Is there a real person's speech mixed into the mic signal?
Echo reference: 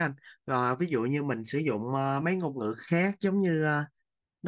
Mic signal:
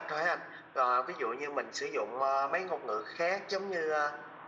No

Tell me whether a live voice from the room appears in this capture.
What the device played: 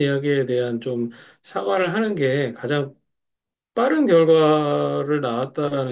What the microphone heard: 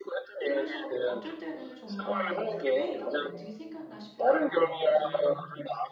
Yes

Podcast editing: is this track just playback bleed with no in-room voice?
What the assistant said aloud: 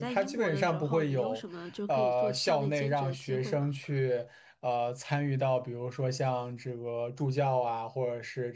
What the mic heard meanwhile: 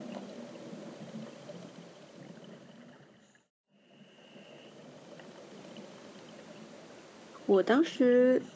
No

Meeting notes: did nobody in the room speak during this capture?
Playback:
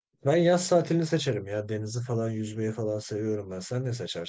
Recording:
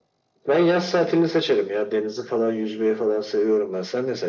Yes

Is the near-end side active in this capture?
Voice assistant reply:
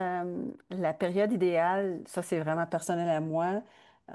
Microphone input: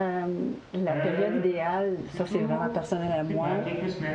Yes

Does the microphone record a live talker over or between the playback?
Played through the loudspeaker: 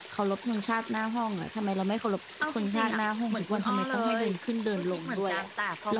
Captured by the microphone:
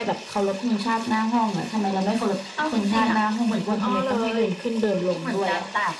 No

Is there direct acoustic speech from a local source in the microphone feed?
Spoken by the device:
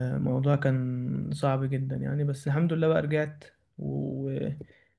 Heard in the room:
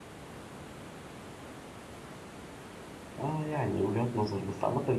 Yes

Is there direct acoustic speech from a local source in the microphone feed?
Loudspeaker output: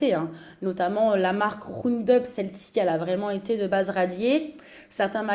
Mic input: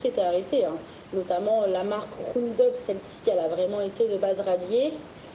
No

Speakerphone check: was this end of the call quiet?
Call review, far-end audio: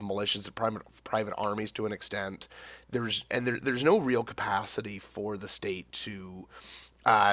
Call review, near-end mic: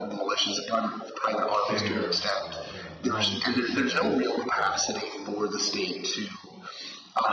No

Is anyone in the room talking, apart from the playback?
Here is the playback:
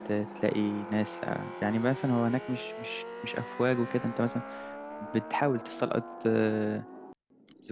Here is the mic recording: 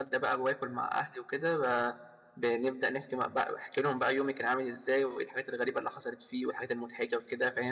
Yes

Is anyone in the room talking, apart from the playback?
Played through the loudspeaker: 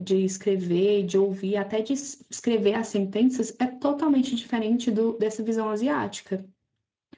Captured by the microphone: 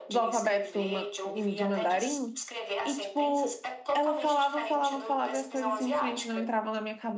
Yes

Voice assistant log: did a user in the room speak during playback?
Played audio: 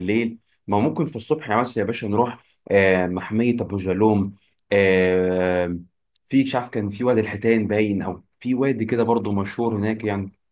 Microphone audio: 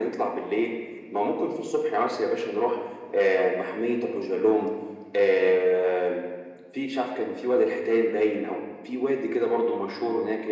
No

